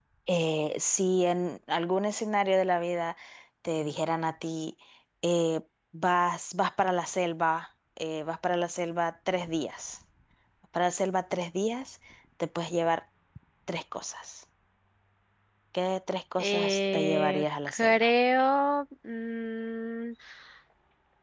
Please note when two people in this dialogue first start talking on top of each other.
16.4 s

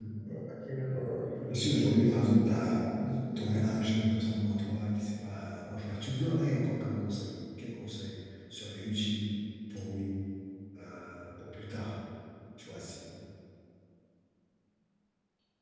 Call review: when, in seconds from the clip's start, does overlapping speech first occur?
1.5 s

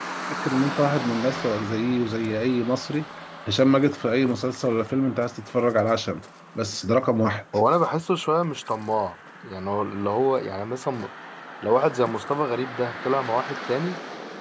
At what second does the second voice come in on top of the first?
none

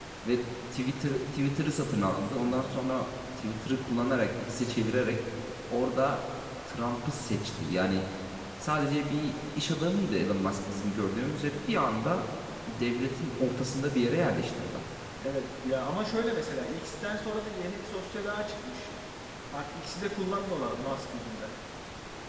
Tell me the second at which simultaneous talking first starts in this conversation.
none

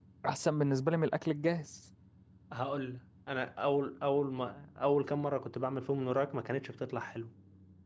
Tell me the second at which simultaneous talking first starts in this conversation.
none

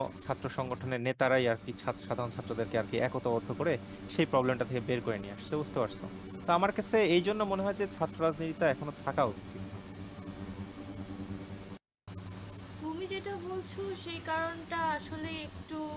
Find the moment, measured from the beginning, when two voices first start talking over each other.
none

